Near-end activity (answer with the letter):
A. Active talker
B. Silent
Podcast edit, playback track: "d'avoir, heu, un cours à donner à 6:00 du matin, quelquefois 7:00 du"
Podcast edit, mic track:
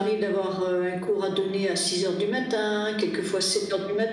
B